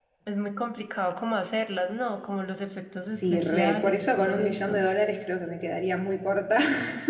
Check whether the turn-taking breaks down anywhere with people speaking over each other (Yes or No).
Yes